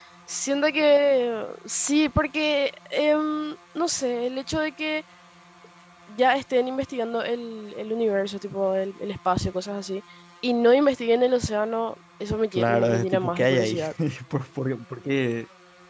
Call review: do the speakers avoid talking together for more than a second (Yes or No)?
No